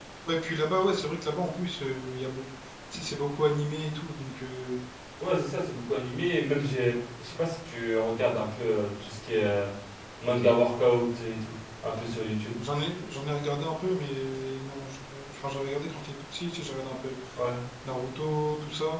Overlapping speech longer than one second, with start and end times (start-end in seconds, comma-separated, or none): none